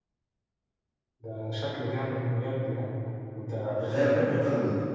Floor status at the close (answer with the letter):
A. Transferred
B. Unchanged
A